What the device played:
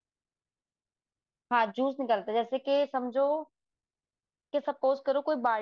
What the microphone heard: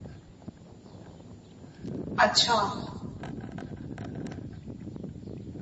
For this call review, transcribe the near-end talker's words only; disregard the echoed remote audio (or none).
अच्छा